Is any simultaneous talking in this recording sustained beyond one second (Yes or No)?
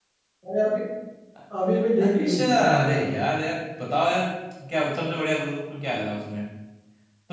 Yes